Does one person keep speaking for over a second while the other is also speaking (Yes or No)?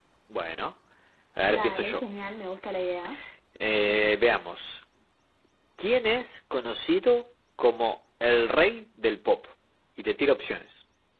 No